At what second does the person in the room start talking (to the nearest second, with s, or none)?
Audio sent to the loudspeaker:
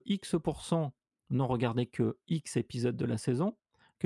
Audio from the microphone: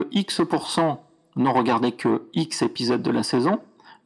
none